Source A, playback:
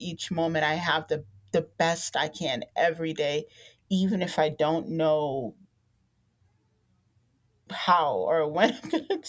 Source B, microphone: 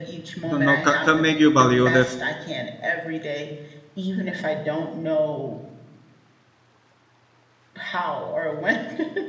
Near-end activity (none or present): present